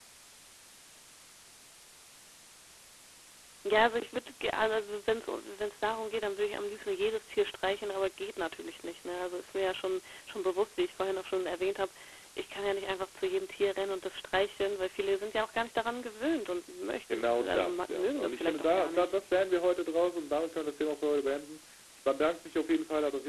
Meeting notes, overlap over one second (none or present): present